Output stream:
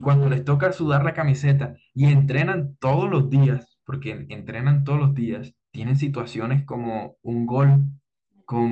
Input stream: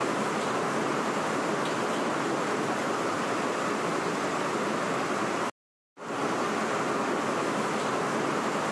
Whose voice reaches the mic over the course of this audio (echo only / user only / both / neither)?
neither